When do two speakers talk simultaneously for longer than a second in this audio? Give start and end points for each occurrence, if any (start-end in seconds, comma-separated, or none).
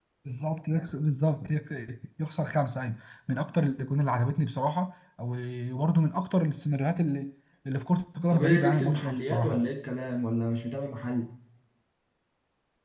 8.3-9.7